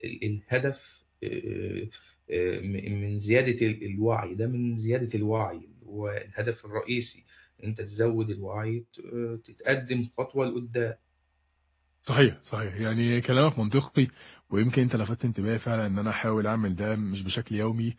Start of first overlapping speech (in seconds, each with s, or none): none